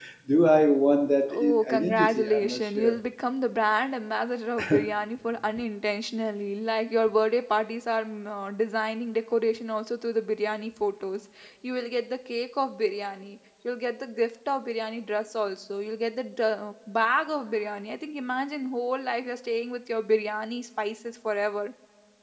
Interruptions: present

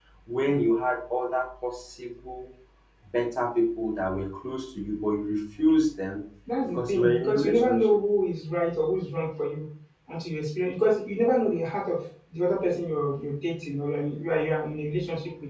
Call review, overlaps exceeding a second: present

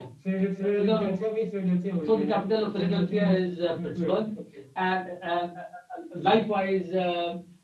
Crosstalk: present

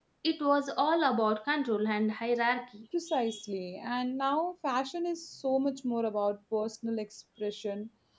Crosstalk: none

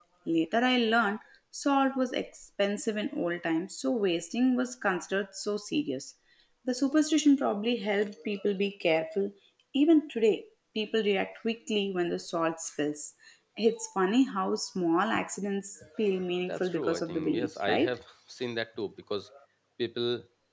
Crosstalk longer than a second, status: present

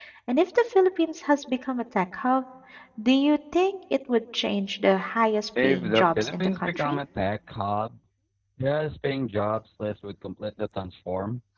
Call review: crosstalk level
present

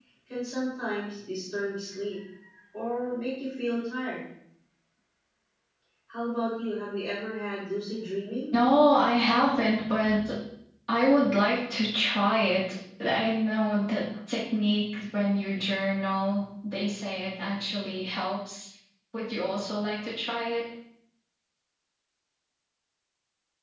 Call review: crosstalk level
none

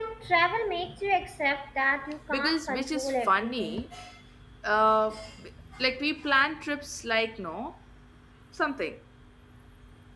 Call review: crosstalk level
present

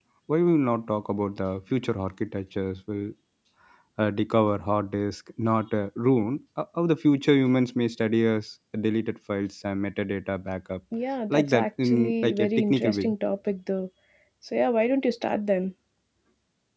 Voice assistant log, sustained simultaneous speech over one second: present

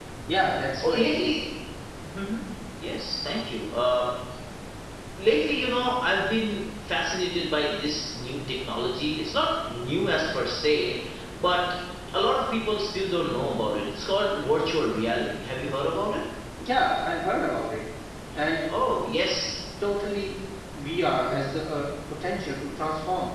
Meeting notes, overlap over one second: none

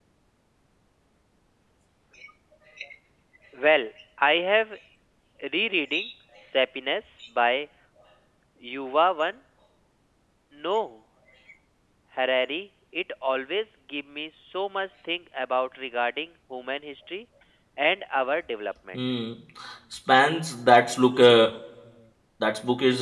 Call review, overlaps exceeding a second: none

